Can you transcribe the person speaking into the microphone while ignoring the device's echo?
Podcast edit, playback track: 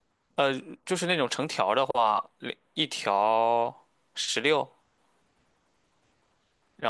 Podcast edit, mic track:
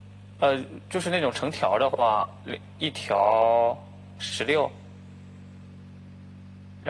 none

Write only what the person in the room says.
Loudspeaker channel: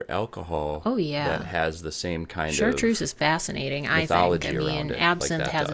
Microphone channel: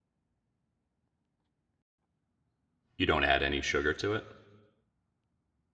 you don't add any sugar to it?

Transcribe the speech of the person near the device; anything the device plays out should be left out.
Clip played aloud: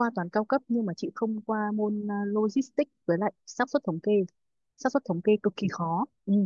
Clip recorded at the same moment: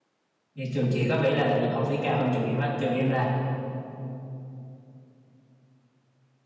Vậy trường chị có vẻ là học phí cao hơn trường em á trường em là

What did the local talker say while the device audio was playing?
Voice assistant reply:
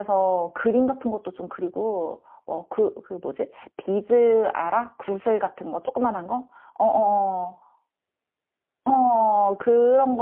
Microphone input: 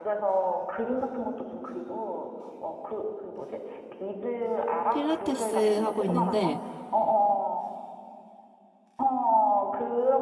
필라테스 하고 있는데

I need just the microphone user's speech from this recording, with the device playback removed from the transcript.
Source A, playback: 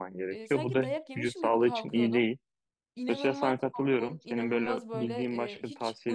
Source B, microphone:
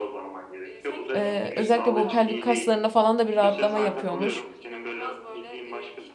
E, özellikle bu pelvik kaslarında falan da bir rahatlama yapıyormuş

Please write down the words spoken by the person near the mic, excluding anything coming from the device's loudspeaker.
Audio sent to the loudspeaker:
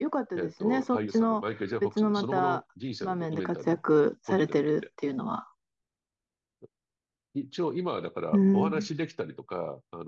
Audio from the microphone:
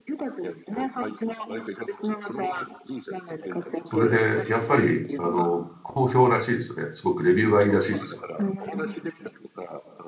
それで、やっぱり、あの、好評らしいですね。すごくレビューがいいらしいですよ。

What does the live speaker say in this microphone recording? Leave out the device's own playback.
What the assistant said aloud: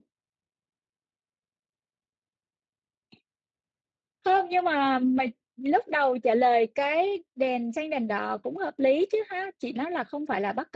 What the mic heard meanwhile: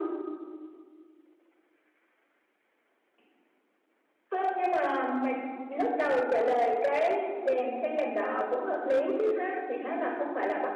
none

